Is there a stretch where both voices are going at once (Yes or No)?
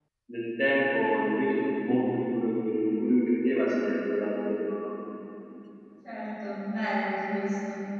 No